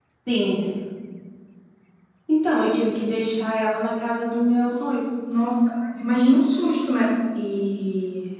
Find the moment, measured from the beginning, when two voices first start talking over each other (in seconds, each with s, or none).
none